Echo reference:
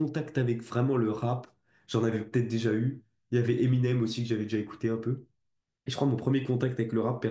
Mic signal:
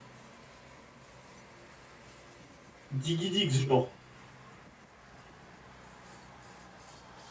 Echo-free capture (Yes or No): Yes